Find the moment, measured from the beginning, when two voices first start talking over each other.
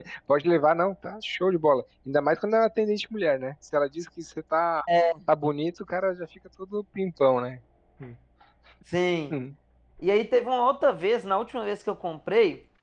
none

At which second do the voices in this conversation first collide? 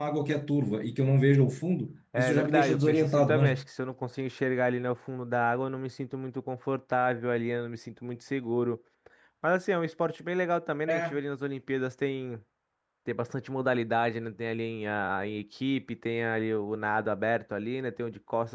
2.2 s

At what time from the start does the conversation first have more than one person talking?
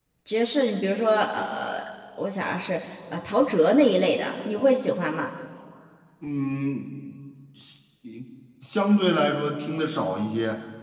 none

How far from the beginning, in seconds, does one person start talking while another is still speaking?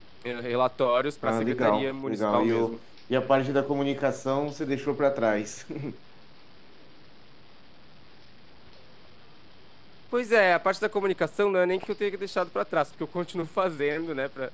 1.2 s

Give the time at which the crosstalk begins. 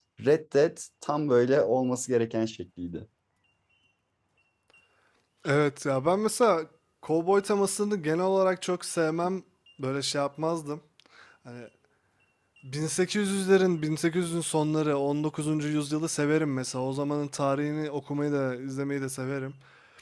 none

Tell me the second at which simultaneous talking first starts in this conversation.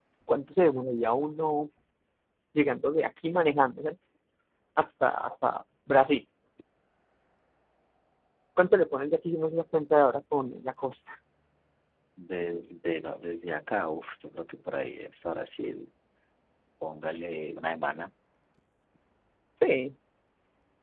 none

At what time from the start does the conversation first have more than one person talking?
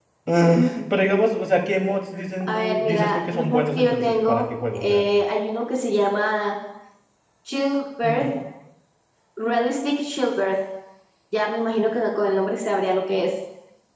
2.4 s

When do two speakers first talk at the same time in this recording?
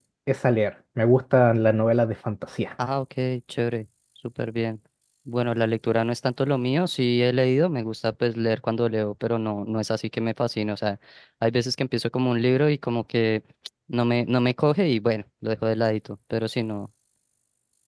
none

